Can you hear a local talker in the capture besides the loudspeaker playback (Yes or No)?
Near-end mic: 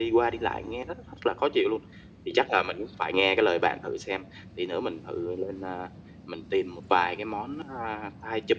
No